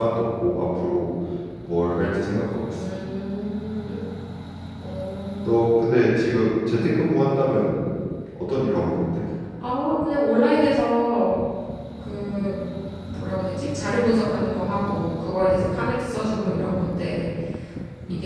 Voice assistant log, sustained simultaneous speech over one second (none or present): none